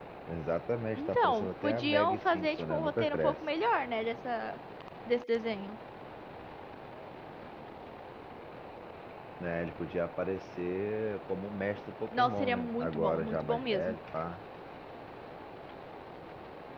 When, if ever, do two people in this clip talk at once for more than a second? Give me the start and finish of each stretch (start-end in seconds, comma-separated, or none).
1.0-3.4, 12.1-14.0